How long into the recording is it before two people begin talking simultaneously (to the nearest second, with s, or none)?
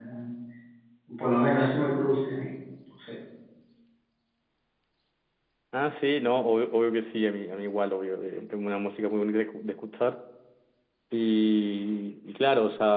none